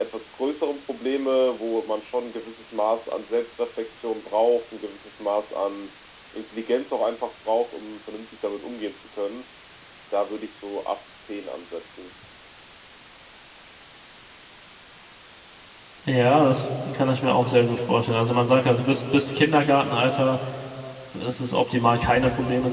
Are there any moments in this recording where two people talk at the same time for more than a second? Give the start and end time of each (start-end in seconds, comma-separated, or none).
none